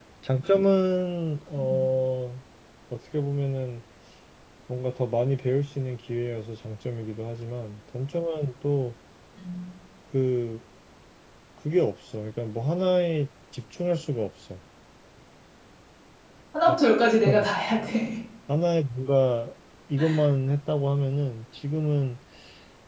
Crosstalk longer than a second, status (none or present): none